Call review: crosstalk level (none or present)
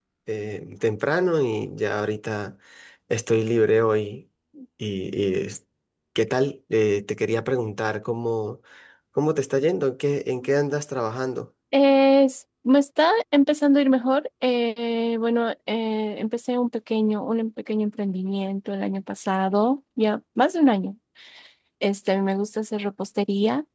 none